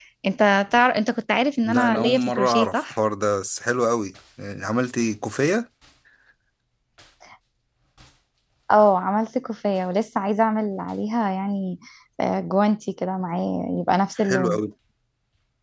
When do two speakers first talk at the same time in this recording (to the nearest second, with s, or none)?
2 s